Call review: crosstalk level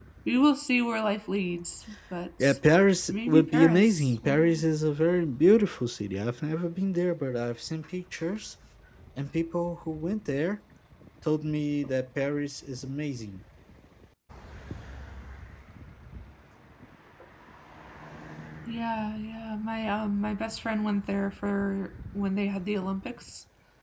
present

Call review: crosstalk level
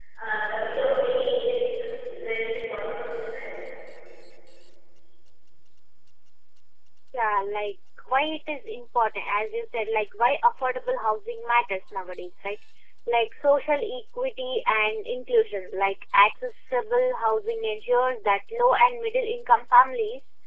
none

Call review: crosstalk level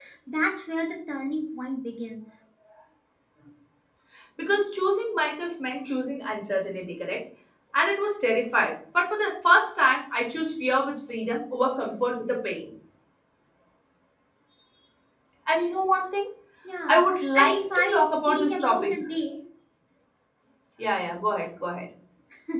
present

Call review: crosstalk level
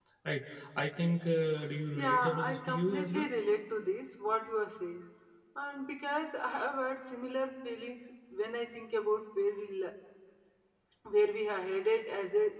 present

